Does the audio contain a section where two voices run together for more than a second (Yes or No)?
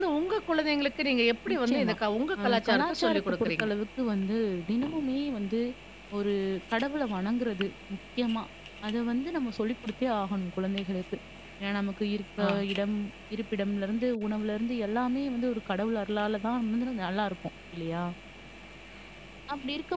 Yes